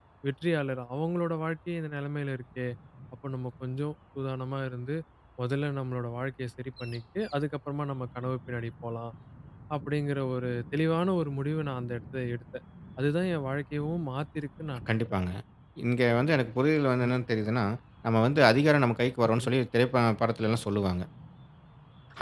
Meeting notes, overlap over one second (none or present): none